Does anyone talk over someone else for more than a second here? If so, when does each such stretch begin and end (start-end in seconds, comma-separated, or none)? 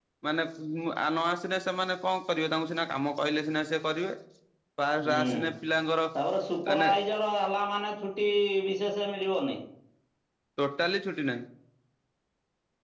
none